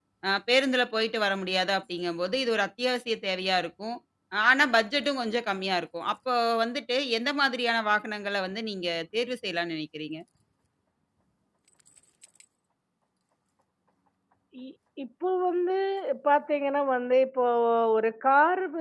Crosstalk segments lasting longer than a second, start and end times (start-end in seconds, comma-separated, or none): none